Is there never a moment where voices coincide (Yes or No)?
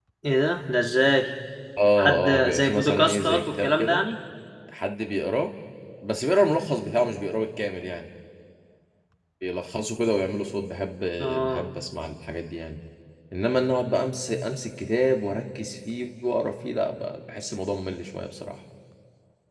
No